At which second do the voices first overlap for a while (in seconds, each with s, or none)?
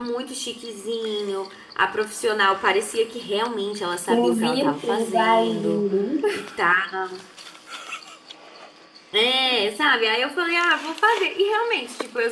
4.1 s